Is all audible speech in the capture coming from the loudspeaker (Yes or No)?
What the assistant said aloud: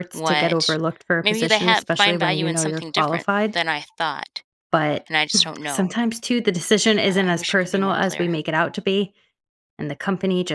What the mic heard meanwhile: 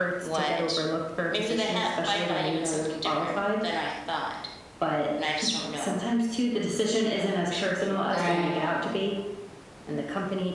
No